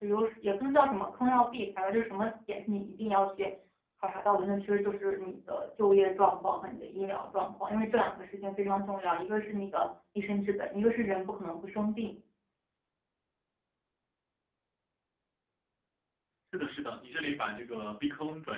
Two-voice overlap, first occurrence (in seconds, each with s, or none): none